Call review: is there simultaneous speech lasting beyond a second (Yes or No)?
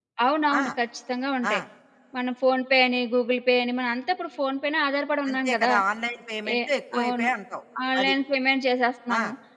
No